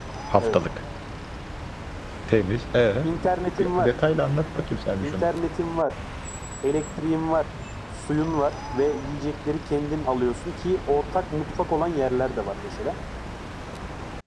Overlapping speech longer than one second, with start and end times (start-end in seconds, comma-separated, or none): none